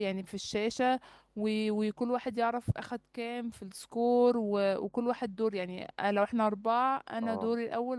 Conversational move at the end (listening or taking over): listening